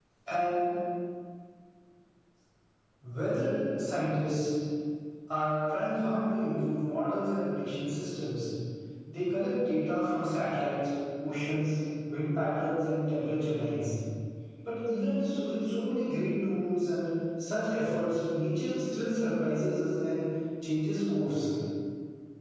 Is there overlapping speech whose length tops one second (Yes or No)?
No